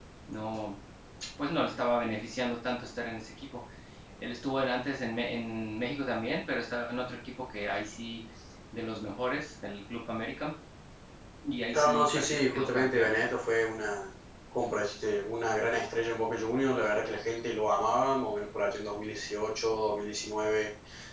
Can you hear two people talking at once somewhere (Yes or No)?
Yes